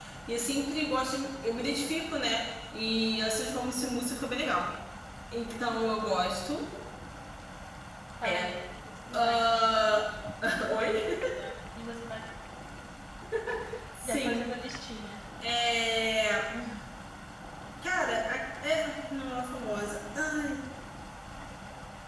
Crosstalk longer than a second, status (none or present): none